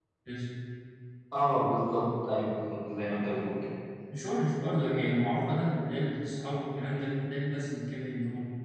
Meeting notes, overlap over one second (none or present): none